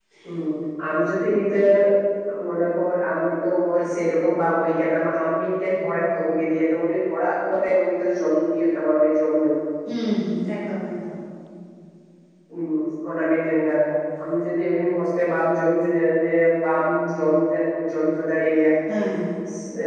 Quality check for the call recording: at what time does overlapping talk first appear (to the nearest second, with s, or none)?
none